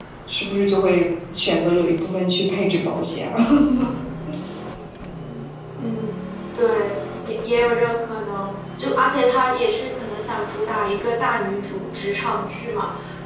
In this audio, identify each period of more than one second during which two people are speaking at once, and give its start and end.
none

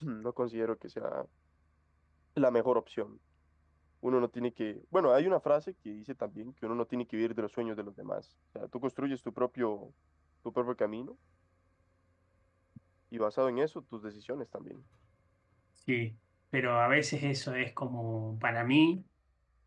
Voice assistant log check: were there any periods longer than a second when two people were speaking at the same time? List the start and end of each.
none

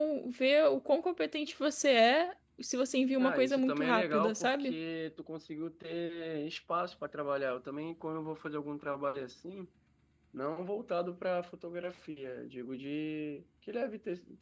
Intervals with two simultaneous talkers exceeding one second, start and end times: 3.2-4.7

